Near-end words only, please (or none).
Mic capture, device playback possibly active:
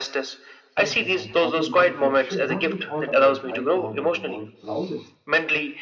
things that might happen things that should not be thought about right now but the wall allows it